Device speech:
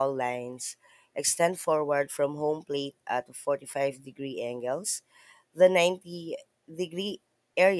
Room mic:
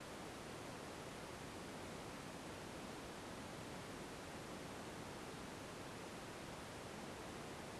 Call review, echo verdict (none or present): none